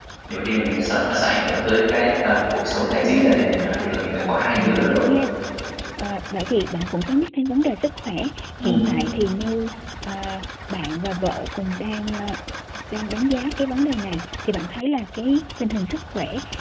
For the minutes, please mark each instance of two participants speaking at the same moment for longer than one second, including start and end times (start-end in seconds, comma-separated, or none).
3.0-5.0